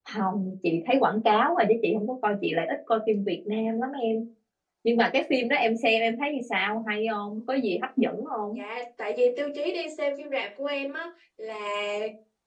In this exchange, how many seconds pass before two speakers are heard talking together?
none

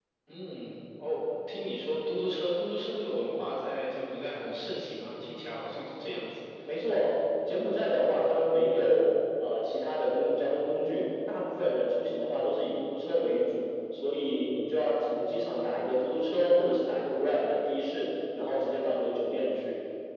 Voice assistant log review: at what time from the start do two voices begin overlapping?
none

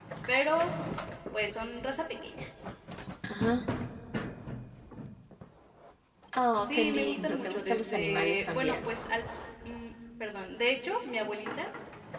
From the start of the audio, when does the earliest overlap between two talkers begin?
6.5 s

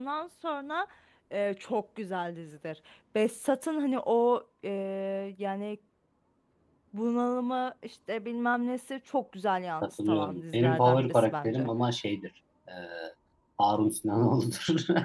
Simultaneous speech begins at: 9.8 s

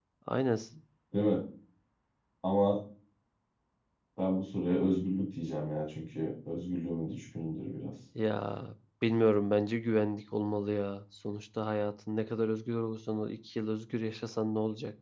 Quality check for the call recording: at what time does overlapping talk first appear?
none

